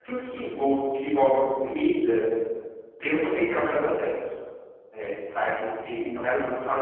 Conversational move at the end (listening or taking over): listening